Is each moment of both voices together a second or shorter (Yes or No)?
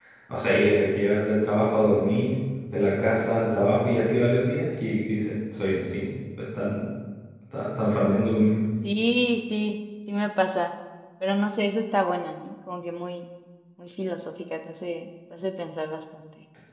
Yes